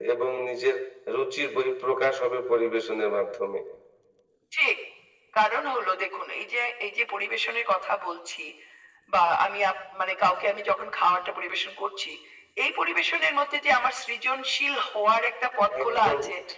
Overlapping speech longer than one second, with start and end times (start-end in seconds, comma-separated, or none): none